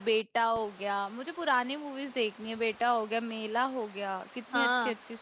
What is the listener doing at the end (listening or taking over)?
taking over